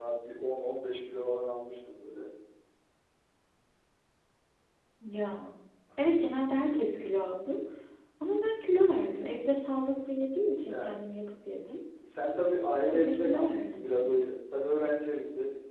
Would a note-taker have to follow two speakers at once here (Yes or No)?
Yes